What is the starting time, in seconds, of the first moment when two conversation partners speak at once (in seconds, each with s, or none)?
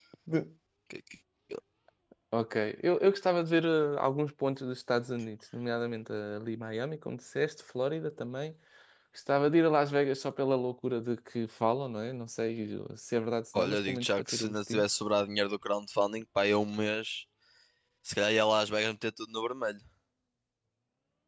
13.5 s